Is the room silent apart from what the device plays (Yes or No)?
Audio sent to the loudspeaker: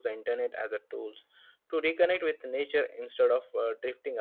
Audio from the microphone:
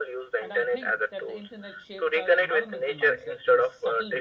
No